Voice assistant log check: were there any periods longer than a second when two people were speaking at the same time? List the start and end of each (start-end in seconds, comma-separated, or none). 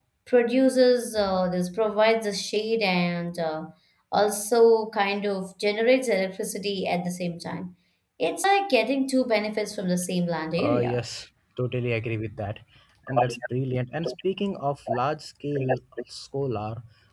none